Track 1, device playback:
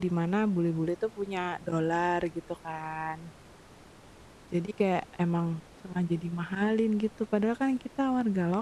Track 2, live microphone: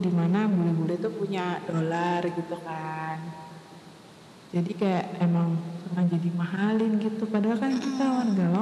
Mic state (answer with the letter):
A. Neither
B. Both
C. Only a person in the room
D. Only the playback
B